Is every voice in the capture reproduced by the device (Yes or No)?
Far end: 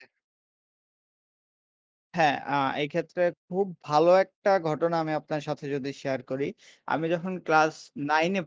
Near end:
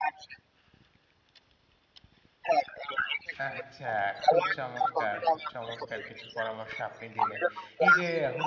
No